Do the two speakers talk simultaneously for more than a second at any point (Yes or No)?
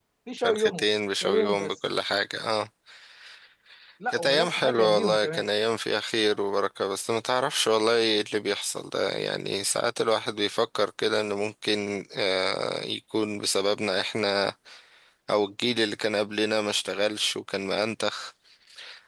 Yes